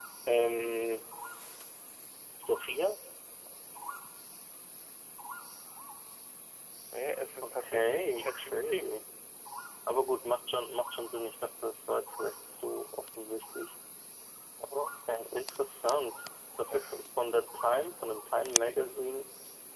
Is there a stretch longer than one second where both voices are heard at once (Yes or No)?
Yes